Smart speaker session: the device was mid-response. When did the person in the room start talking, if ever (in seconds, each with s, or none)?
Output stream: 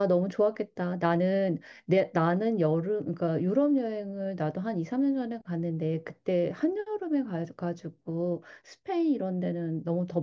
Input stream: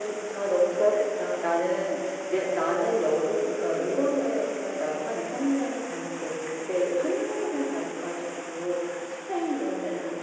none